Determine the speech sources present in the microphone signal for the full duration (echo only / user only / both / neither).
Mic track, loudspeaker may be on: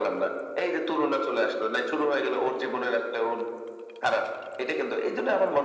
echo only